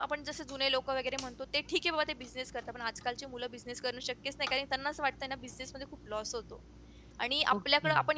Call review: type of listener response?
listening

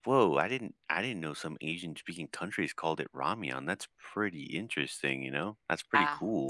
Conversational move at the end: taking over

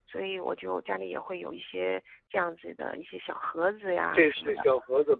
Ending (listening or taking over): taking over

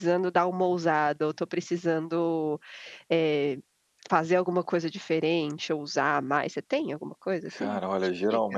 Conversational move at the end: taking over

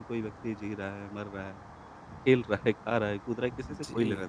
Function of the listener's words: taking over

